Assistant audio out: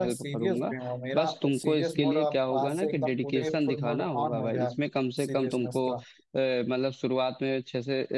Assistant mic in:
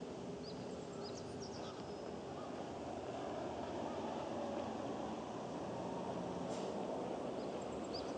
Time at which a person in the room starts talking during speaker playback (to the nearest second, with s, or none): none